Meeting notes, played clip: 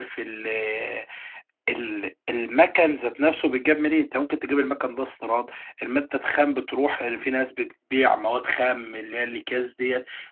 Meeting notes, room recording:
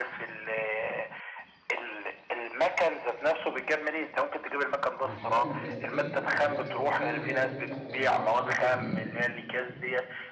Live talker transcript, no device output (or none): للحاجات البلاستيكيه لحاجات ورقيه اللي هي تنفع تعمل لها اعاده تدوير